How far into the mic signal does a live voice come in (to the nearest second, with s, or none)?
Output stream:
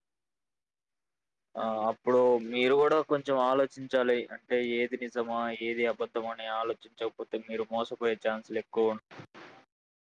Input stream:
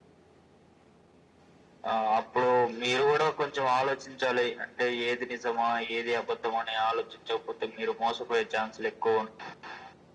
none